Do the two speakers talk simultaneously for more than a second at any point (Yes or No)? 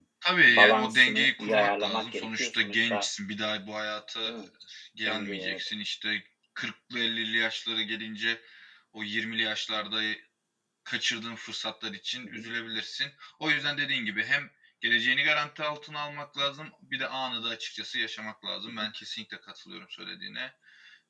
Yes